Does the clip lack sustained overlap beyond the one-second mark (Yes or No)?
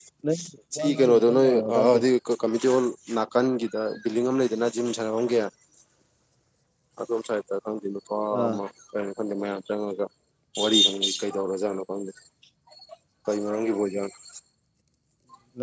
No